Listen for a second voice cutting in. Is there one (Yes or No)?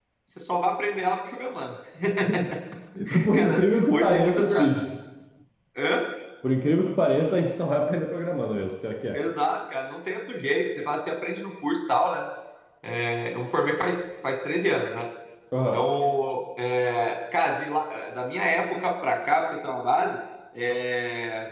Yes